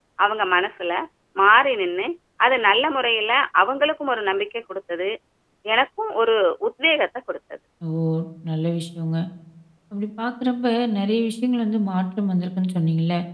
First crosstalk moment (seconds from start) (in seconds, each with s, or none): none